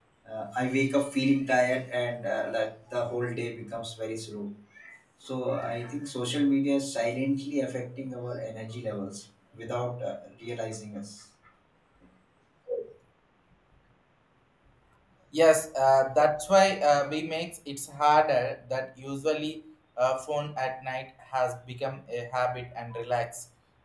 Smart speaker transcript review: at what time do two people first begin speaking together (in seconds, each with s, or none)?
none